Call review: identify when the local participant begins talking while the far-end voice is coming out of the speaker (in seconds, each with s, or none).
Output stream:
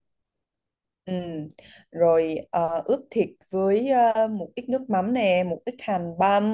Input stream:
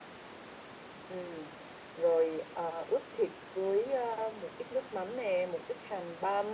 none